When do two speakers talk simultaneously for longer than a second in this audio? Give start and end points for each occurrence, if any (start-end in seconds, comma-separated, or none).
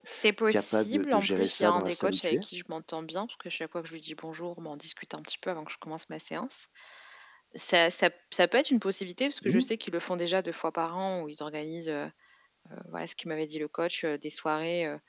0.5-2.4